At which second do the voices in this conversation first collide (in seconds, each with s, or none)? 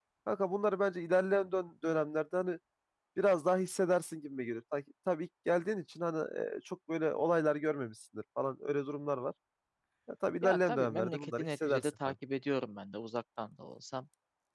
10.4 s